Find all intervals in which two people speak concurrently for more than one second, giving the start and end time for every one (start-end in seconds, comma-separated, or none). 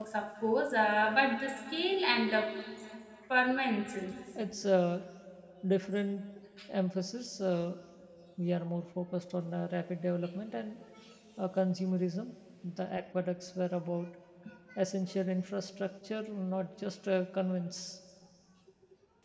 none